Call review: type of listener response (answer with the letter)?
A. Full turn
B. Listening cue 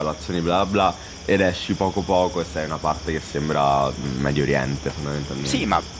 A